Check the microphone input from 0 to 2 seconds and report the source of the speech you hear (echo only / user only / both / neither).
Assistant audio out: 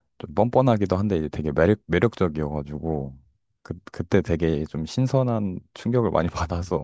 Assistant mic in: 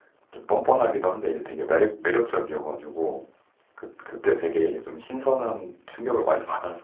echo only